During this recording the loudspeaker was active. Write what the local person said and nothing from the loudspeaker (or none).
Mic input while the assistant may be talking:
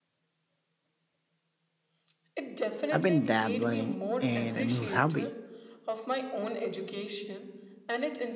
I've been dabbling in a new hobby.